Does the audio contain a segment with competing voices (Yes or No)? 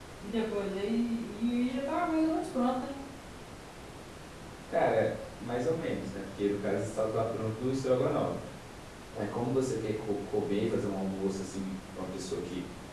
No